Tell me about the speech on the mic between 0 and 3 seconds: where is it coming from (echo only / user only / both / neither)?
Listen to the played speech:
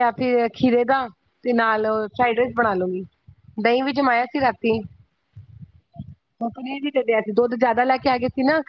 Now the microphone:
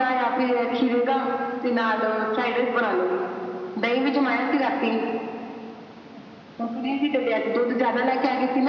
echo only